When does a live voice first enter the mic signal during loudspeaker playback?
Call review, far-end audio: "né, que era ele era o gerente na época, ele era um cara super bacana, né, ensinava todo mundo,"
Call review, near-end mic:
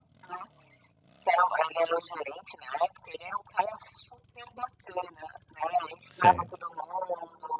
6.1 s

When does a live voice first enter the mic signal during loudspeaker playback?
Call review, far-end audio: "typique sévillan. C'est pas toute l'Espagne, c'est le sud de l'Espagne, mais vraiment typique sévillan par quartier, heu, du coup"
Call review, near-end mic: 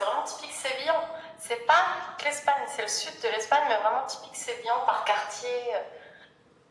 none

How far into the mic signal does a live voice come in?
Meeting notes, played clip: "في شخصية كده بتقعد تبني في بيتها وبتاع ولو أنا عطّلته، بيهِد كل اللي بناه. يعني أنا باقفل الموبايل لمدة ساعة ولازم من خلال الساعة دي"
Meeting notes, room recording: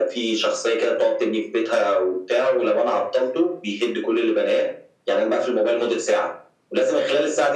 none

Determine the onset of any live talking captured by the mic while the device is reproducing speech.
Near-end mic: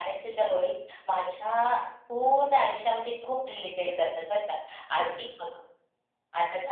none

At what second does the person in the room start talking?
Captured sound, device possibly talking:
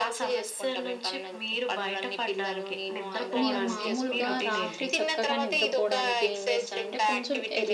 3.2 s

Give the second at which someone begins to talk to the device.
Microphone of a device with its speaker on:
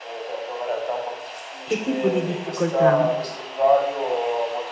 1.7 s

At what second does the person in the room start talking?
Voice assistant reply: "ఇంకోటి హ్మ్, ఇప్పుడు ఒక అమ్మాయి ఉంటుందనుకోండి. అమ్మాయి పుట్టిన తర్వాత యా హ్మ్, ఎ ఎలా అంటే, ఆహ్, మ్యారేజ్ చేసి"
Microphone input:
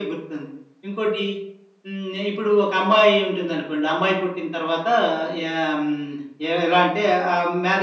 none

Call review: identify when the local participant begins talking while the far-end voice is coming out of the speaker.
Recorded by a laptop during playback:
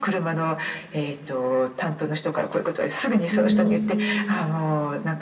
3.3 s

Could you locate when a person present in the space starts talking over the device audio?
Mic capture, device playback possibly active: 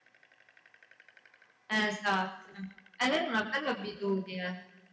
1.6 s

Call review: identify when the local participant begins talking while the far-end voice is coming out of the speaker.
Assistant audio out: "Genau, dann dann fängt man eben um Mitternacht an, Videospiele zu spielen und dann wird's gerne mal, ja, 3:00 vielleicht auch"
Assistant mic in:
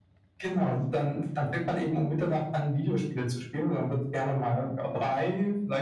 none

